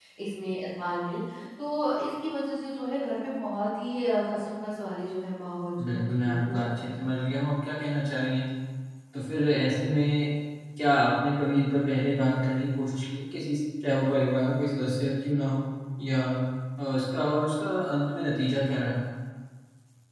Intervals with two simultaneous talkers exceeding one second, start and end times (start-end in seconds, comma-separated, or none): 5.8-7.0